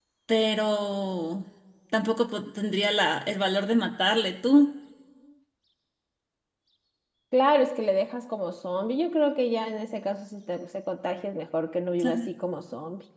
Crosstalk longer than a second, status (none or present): none